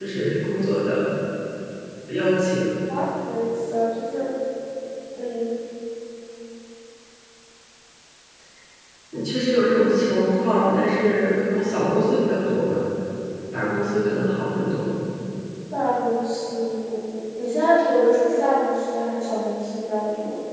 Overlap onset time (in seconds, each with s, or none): none